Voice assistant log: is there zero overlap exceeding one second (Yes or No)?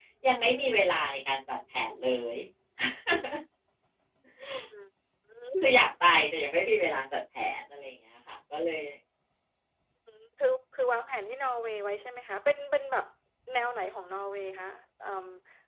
Yes